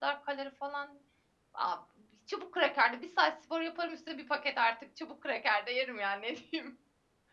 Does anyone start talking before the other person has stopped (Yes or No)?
No